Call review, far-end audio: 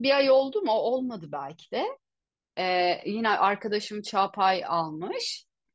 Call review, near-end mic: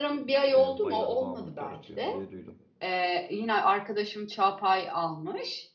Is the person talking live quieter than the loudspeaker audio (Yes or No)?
Yes